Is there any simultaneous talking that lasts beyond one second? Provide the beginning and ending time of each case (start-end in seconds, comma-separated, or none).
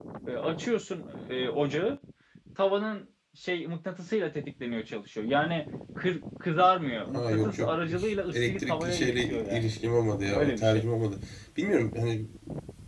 7.1-9.7